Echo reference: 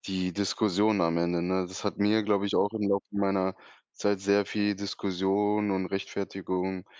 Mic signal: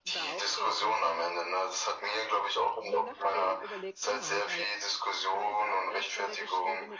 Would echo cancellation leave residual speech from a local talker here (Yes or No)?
Yes